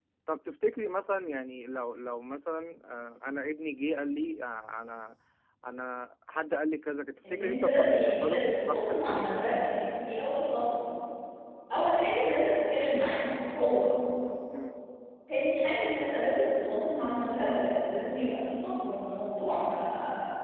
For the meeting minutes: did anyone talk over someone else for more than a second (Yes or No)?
Yes